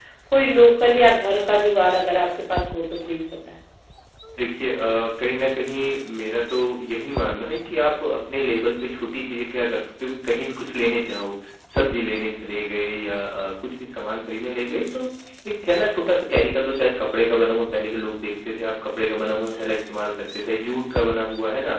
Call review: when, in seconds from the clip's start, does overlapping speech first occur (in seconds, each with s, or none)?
none